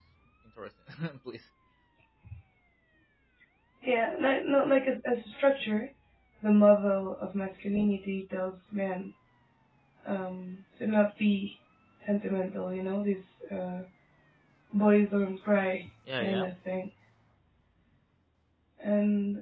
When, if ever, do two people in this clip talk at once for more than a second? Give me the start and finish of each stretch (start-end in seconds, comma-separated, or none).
none